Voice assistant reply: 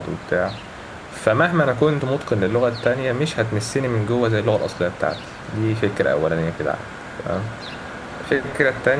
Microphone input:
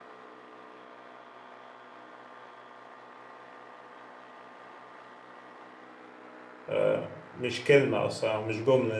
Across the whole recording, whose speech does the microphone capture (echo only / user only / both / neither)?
user only